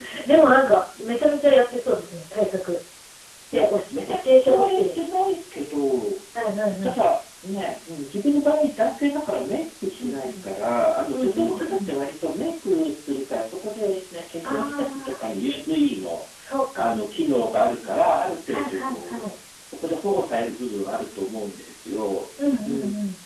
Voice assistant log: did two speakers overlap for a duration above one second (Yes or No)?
Yes